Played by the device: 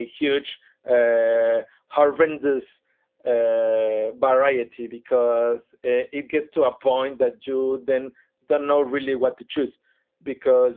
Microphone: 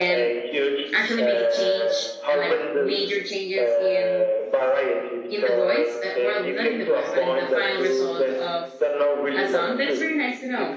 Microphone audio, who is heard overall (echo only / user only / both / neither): both